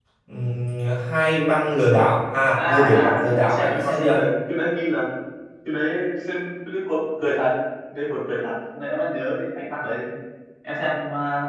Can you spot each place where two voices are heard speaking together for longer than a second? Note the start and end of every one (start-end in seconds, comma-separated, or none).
2.6-4.2